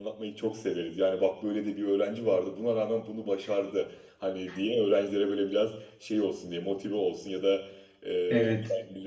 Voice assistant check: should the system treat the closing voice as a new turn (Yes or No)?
No